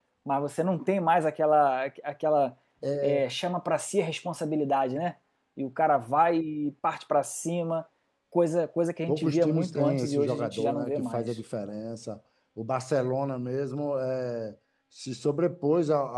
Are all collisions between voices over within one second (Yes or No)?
No